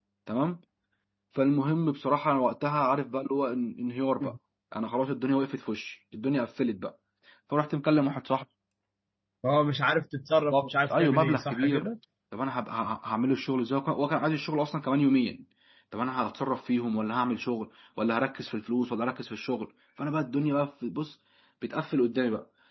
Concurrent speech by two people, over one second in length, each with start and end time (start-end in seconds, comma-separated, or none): 10.5-11.9